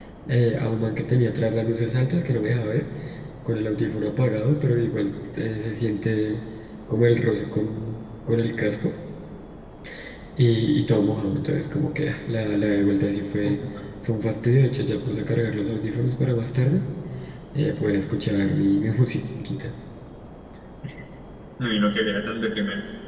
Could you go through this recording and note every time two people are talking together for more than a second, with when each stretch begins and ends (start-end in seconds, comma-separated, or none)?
none